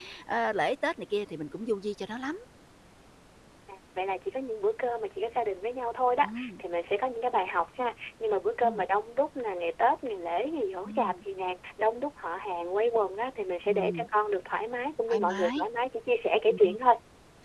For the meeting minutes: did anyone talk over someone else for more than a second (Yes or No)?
No